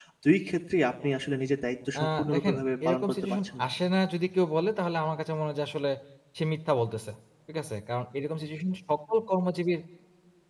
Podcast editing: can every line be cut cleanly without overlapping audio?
No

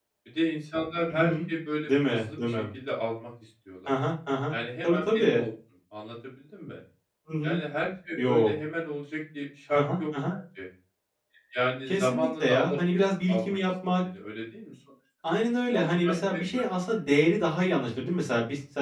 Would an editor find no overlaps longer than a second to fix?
No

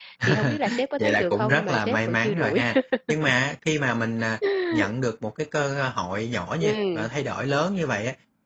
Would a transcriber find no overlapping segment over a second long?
No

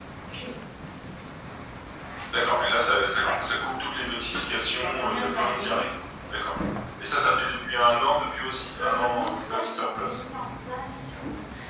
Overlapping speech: Yes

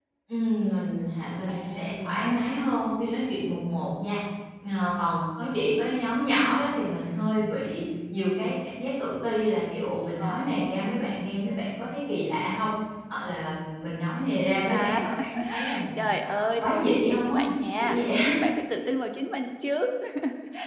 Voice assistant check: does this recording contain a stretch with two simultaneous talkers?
Yes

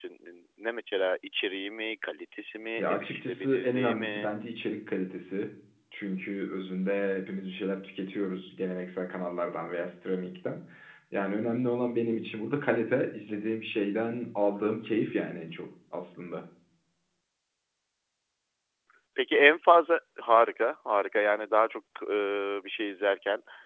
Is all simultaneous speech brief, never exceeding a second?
No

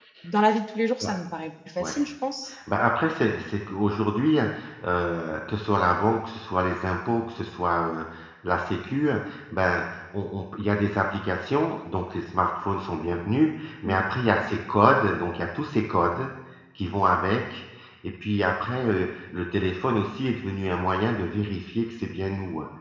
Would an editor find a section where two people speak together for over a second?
No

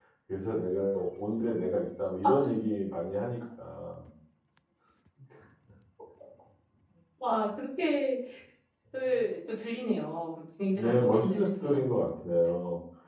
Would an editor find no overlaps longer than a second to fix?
No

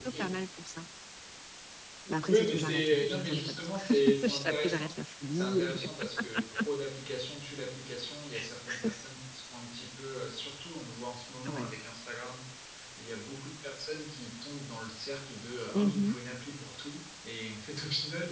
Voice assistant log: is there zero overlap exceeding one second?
No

